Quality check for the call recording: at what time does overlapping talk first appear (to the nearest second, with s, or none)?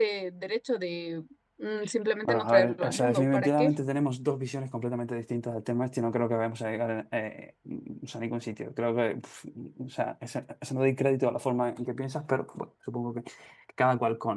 2 s